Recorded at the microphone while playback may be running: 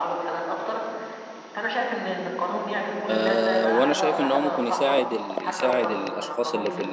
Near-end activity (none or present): present